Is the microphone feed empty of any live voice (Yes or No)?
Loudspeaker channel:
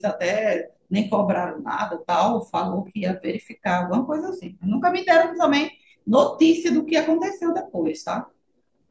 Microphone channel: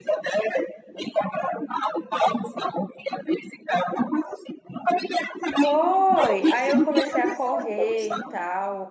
No